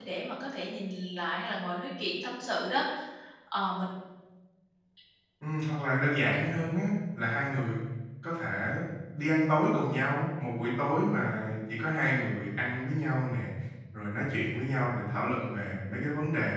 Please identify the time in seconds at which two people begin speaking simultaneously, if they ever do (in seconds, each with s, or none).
none